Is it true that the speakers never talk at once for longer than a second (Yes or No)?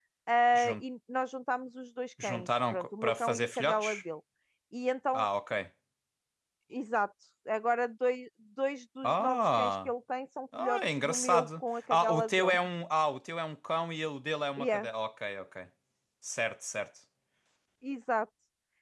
No